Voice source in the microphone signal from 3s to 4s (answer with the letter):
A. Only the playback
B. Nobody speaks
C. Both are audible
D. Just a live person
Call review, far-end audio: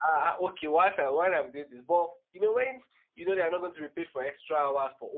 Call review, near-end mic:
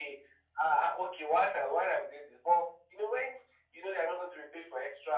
A